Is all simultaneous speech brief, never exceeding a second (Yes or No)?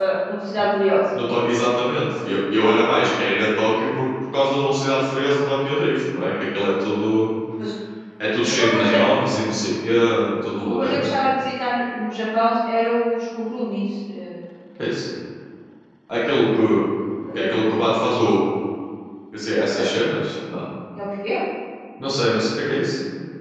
Yes